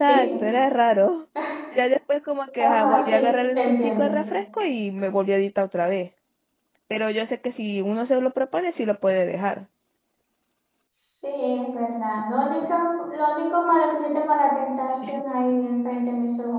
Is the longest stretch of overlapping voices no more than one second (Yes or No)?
No